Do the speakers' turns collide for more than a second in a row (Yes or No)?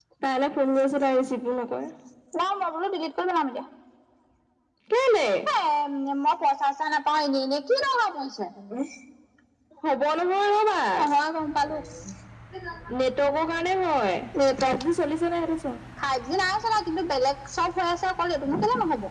No